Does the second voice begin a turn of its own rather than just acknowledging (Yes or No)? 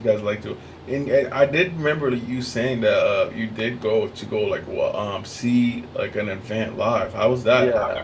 Yes